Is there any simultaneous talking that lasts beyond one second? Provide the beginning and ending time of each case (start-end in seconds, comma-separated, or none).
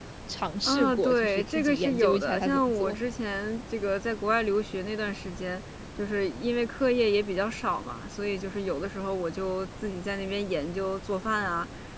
0.6-3.0